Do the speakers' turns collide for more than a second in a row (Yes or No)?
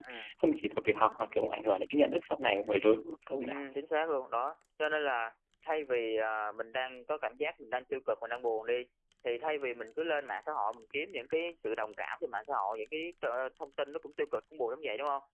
No